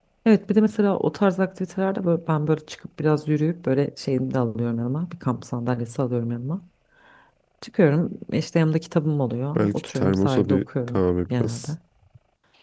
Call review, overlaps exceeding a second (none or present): present